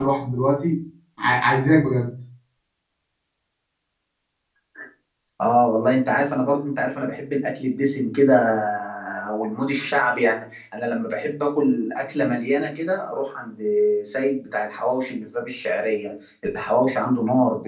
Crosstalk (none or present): none